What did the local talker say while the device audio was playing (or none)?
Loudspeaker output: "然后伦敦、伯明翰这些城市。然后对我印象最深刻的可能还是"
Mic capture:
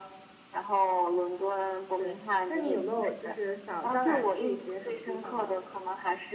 对，那你有没有就是想将来去一些什么地方呢？